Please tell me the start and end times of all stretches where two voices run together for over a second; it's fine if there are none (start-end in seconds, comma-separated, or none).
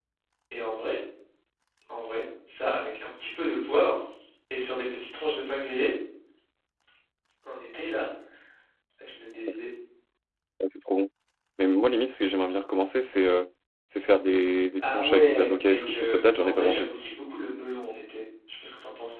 14.8-16.9